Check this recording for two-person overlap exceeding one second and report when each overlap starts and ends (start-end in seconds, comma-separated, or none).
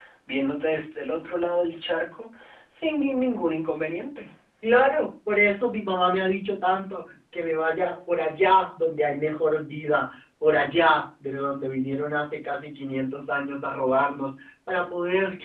none